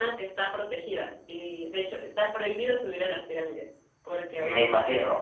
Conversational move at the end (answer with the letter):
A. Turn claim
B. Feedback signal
B